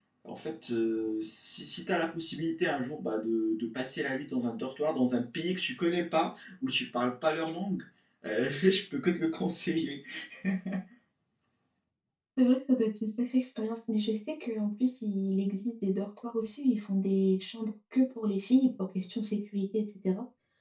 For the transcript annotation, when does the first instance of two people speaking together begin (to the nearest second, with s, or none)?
none